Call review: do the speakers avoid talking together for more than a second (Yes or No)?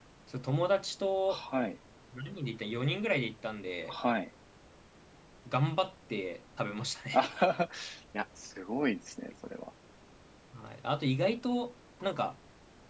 Yes